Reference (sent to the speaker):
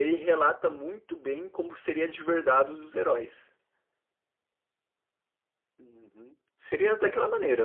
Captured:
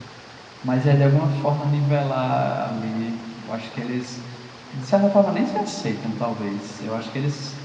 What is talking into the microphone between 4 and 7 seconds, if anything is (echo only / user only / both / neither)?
user only